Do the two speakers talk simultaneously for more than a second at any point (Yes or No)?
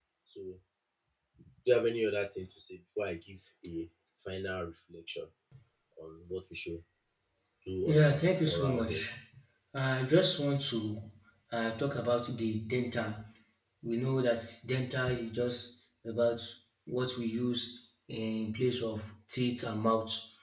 Yes